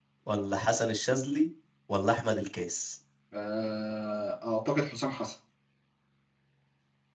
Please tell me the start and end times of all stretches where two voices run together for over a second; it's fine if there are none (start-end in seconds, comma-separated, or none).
none